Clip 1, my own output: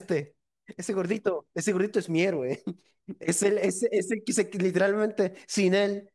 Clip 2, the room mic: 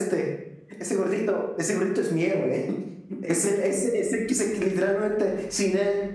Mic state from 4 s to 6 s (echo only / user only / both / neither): echo only